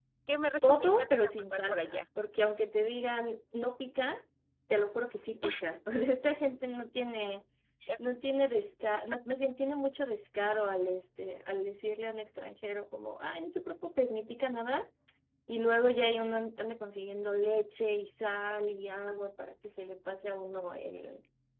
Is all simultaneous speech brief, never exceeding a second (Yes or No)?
No